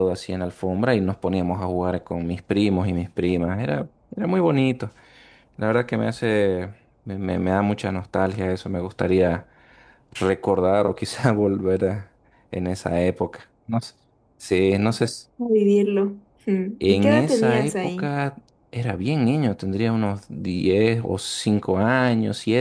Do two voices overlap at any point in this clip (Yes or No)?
Yes